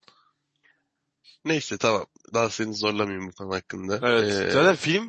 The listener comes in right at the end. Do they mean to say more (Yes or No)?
Yes